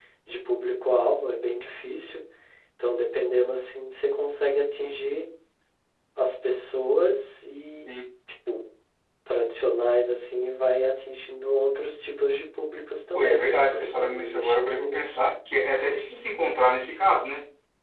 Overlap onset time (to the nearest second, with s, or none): 13 s